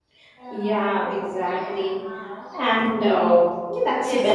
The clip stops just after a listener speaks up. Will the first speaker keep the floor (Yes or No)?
No